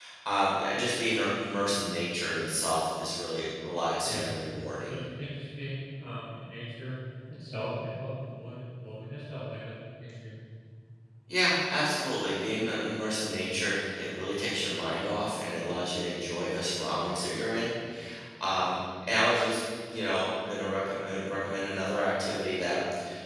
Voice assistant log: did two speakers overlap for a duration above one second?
No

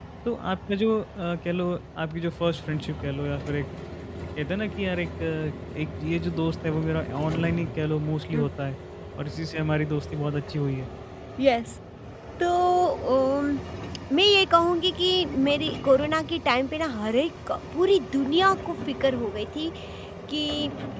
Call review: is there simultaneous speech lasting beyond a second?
No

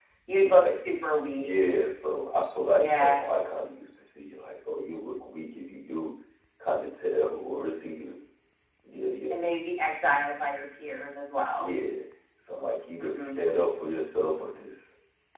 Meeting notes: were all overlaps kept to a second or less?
Yes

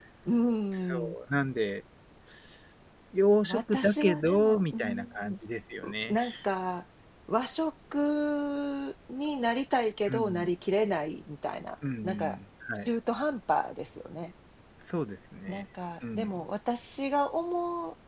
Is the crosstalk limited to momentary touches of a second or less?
No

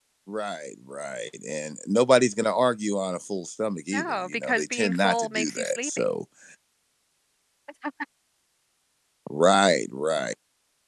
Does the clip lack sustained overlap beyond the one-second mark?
No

